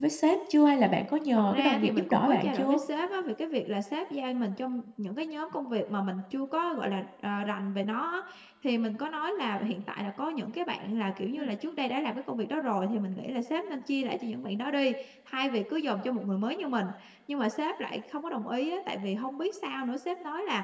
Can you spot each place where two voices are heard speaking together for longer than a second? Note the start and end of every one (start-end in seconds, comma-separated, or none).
1.4-2.8